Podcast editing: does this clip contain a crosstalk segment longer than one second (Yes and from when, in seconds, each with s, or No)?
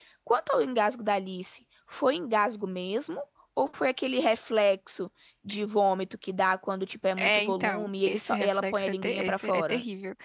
Yes, from 7.2 s